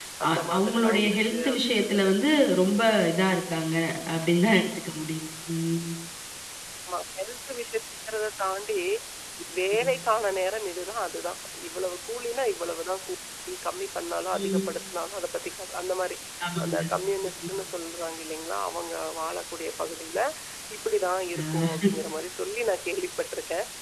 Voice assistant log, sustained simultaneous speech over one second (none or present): present